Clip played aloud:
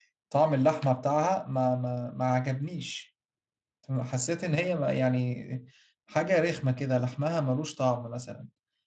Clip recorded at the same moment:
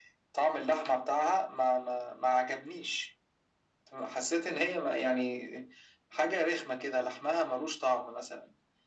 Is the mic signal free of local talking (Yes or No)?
Yes